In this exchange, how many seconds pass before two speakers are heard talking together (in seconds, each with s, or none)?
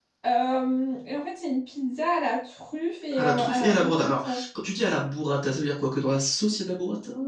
3.1 s